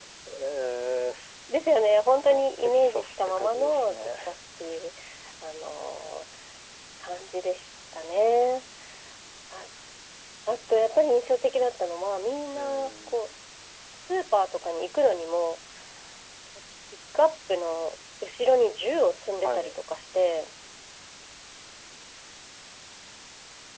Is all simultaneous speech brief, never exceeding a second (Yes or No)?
No